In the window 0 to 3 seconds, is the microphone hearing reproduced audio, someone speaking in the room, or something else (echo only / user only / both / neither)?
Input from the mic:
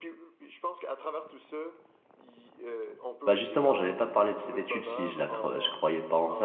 echo only